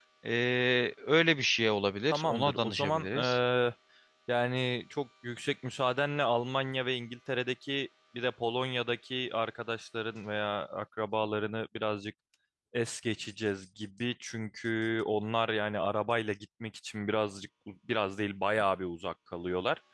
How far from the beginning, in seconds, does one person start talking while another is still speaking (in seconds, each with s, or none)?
2.1 s